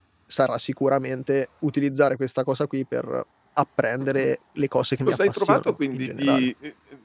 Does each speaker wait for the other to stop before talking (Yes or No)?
No